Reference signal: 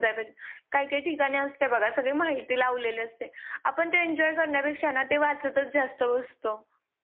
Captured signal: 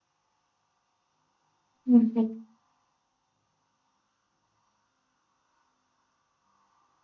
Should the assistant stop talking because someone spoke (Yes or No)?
Yes